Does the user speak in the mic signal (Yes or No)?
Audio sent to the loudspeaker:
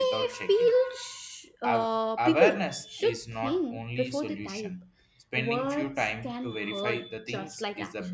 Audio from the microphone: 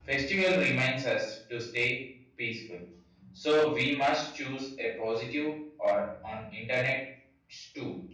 Yes